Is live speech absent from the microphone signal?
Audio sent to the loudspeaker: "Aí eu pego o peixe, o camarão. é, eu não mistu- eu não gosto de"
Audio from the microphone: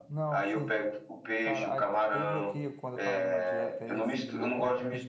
No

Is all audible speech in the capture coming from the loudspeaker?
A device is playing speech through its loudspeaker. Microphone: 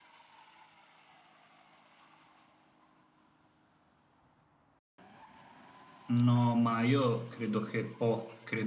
No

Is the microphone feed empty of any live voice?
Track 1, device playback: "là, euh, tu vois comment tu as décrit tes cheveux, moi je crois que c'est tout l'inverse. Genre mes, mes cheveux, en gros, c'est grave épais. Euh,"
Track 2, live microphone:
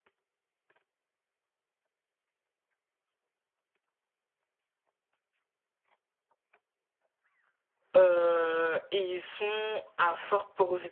No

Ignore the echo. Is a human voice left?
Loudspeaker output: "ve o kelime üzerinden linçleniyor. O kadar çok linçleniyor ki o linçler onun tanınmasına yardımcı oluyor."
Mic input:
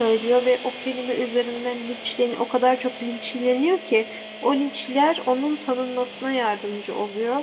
No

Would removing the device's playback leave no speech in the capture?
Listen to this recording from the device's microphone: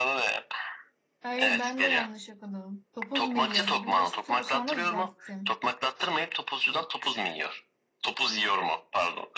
No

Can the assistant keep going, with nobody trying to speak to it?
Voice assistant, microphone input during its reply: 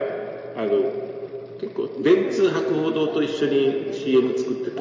No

